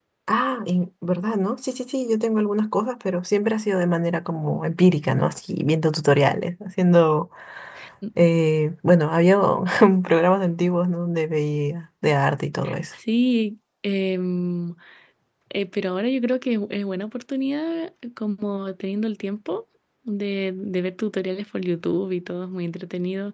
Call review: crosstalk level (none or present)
none